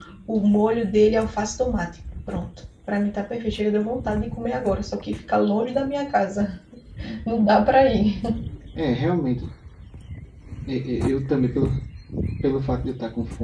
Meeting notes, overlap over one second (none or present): none